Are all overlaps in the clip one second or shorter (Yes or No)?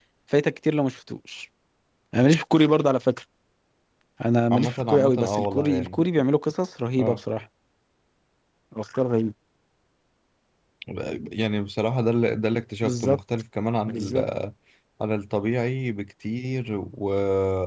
No